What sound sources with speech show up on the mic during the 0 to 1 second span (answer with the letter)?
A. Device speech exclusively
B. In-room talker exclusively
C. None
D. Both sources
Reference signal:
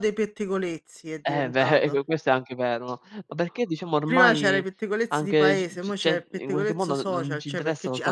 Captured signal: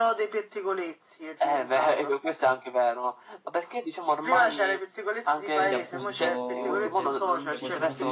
A